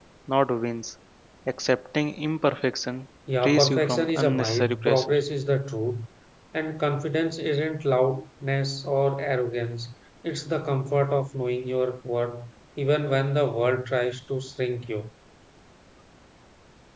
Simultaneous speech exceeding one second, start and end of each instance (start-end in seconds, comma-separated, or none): 3.4-5.1